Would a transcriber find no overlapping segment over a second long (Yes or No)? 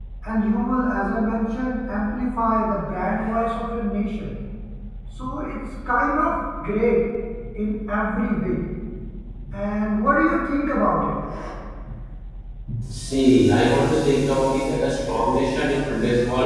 Yes